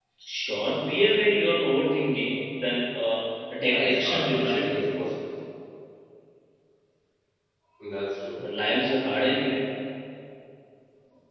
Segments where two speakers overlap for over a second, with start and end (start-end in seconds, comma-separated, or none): 3.5-4.8